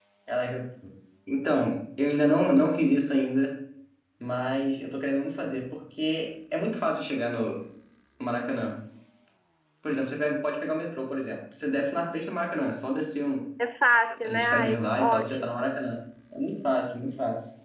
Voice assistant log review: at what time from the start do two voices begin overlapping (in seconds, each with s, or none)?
14.2 s